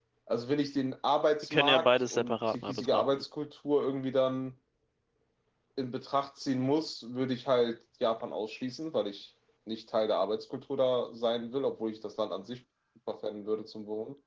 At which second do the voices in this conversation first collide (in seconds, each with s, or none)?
1.5 s